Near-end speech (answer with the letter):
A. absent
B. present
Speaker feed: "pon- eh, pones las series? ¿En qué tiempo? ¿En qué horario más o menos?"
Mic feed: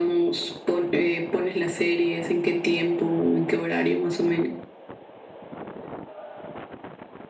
A